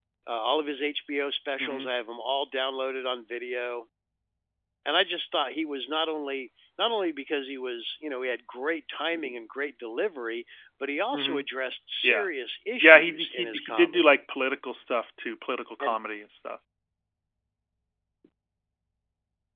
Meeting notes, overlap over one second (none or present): present